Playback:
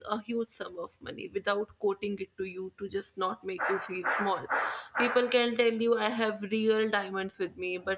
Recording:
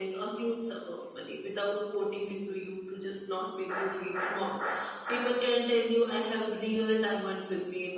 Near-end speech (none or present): none